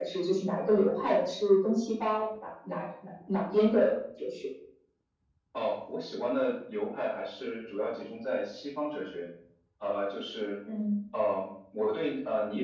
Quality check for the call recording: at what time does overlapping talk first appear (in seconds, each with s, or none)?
none